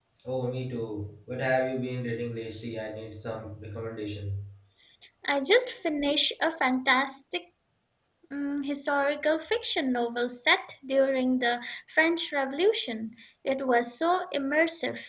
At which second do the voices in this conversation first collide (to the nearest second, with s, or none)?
none